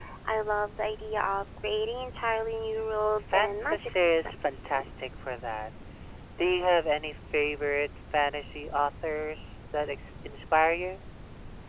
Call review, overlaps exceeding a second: present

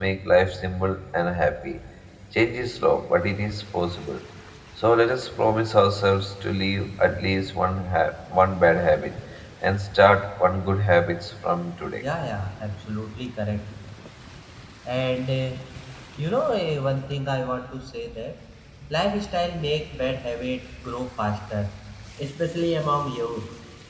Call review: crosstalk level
none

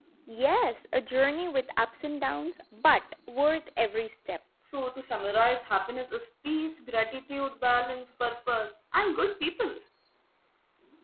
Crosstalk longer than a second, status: none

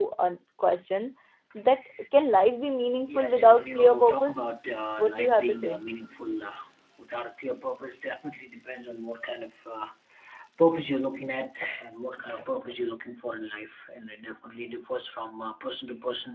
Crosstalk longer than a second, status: present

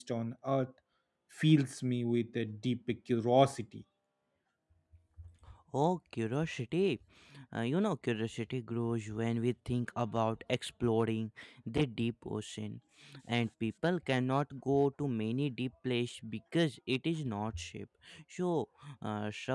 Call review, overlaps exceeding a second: none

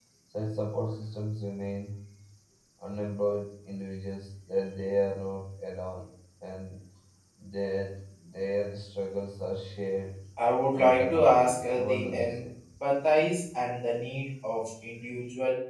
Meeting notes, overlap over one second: present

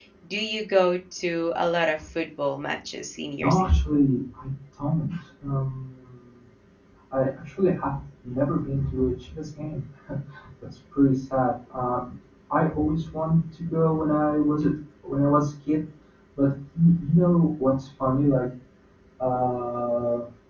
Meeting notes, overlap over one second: none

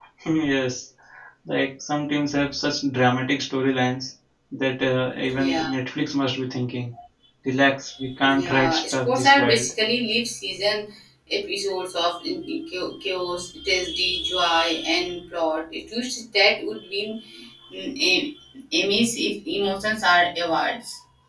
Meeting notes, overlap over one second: present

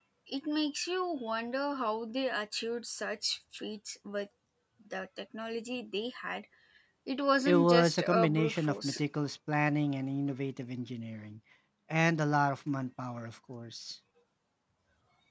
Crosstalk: present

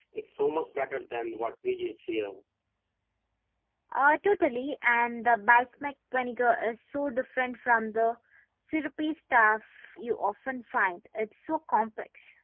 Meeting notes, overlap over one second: none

